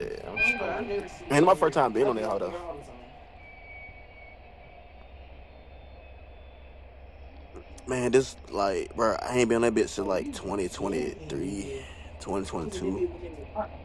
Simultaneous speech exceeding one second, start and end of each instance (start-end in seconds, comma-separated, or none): 1.3-2.6, 10.0-11.7